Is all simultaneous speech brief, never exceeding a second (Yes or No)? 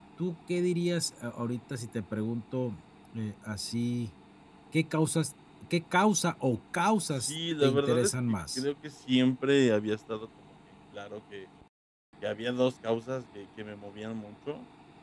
No